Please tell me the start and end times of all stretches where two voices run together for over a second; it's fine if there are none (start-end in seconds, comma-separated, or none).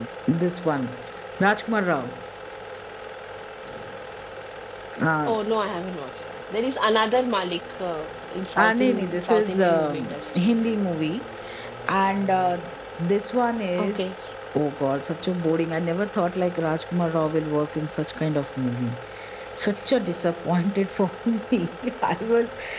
8.6-10.5